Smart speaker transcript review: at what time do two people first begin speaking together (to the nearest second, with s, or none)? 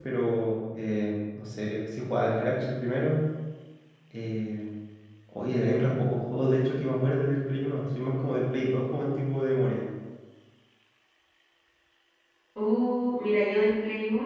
none